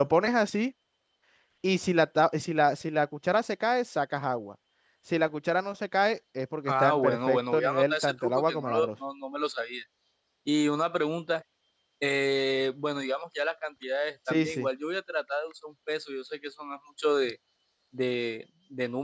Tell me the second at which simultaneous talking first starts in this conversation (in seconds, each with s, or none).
6.7 s